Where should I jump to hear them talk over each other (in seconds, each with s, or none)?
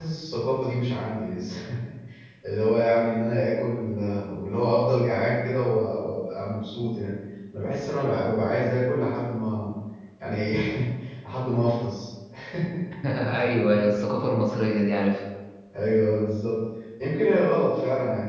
none